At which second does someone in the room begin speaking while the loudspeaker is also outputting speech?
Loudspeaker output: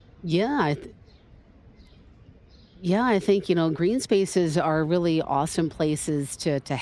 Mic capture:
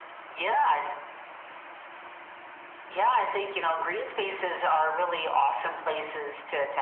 none

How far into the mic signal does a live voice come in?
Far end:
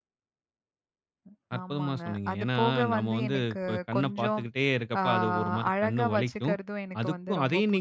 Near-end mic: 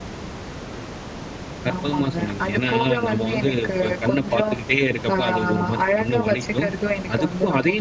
none

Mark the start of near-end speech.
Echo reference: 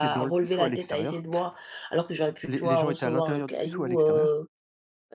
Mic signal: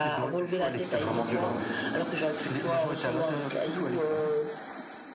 1 s

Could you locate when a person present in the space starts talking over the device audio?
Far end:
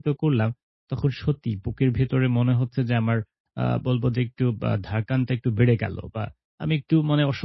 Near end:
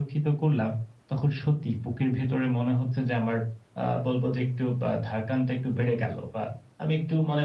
none

